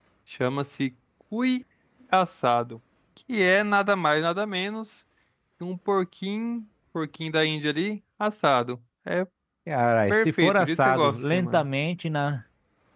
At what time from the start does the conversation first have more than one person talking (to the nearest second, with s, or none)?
10 s